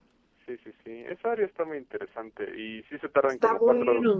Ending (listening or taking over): listening